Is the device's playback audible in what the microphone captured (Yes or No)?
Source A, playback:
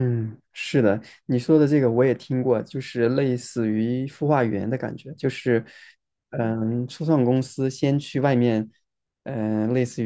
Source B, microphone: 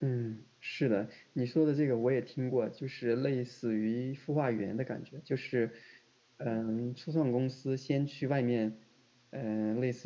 Yes